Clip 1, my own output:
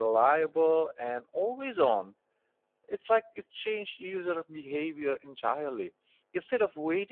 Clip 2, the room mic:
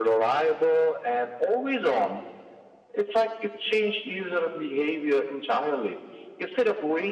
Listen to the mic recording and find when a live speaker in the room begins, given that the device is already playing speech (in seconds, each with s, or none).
none